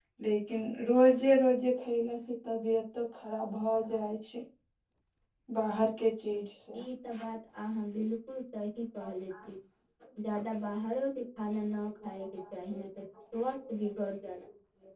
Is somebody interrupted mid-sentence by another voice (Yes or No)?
No